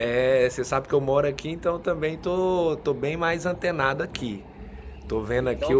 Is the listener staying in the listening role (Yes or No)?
No